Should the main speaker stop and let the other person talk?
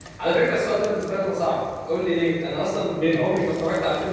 No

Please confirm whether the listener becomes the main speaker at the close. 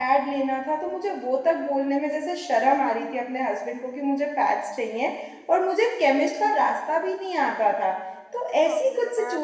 No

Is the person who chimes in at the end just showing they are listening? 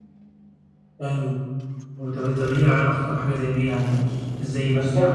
No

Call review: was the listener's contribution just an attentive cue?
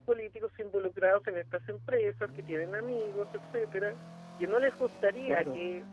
Yes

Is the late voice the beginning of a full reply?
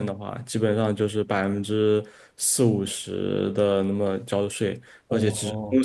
No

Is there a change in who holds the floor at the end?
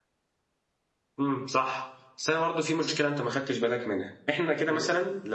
No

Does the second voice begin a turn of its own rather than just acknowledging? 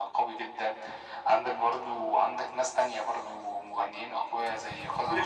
Yes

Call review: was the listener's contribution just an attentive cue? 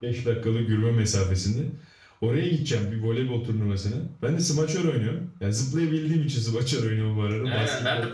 No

